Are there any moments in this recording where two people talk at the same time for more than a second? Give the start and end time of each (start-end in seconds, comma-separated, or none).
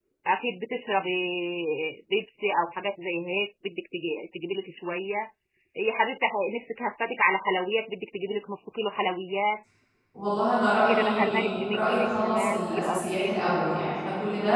10.9-13.3